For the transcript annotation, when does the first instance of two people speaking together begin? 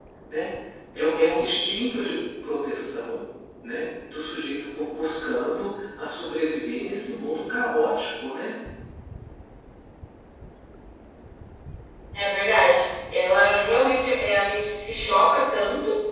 none

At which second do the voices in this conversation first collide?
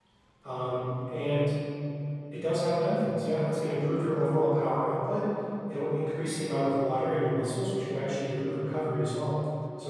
none

